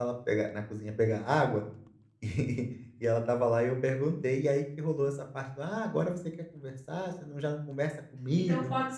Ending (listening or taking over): taking over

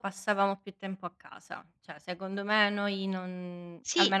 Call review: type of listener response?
listening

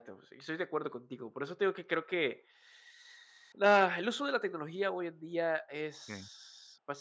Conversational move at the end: listening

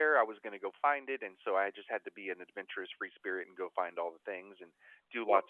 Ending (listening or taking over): listening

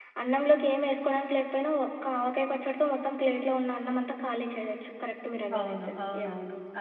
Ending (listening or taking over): taking over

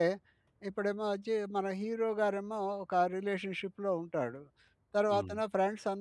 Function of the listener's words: listening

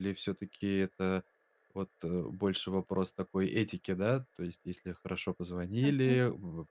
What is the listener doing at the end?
listening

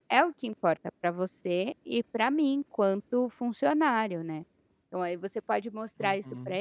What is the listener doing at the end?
listening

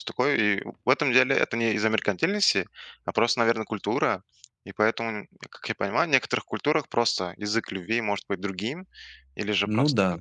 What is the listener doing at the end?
listening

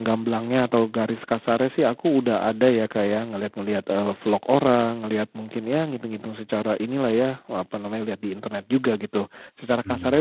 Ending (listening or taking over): listening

